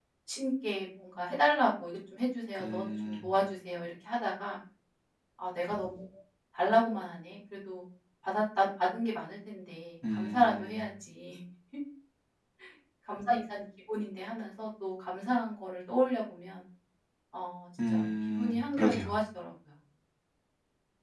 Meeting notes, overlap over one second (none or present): present